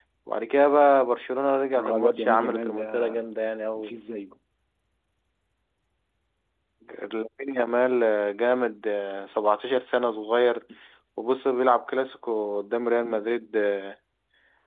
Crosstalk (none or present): present